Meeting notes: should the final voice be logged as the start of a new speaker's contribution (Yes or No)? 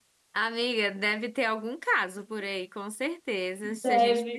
No